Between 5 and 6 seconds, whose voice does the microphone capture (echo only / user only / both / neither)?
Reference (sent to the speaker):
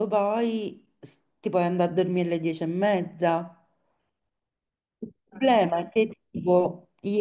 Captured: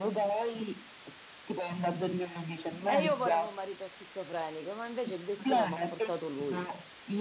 both